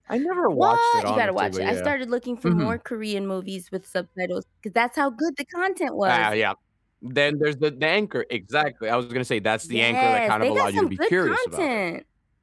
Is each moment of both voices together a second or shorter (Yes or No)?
No